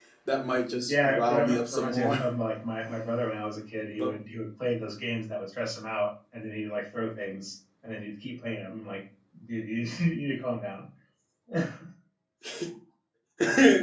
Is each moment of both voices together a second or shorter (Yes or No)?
No